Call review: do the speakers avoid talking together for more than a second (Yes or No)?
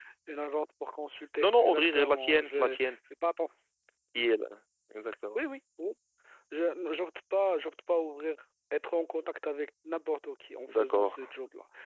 No